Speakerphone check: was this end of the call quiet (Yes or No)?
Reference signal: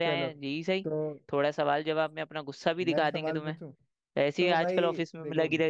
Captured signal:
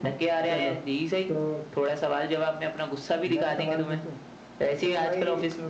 Yes